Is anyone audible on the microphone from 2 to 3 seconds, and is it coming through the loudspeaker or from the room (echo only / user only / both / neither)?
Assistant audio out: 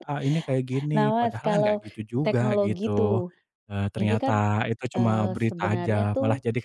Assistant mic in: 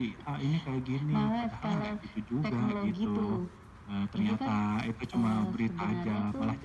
echo only